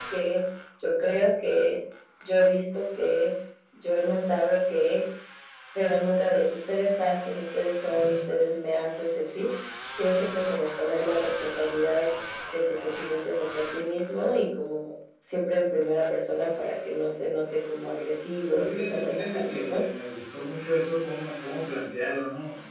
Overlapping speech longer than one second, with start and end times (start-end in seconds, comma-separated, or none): 18.5-19.8